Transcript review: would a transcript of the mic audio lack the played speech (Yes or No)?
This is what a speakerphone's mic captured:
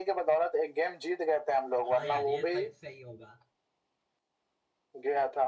No